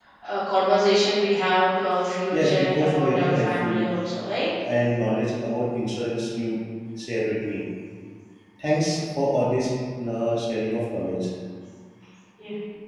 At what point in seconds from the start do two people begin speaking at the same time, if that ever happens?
2.3 s

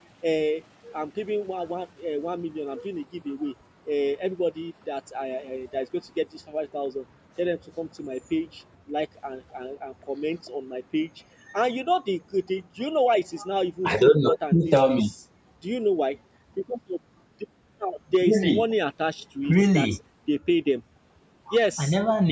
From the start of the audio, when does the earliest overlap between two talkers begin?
13.8 s

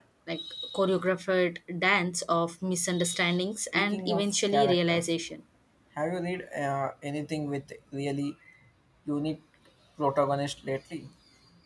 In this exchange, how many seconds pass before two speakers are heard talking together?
3.7 s

